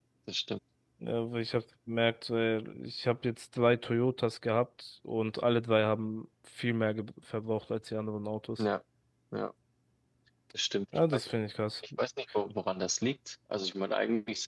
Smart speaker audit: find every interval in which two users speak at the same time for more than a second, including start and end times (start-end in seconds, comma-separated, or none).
none